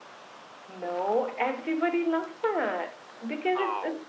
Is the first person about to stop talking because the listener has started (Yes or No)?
No